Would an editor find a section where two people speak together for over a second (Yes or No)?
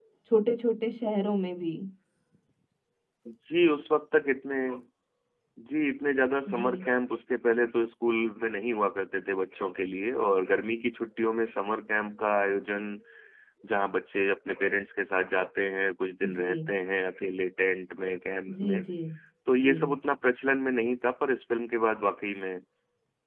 No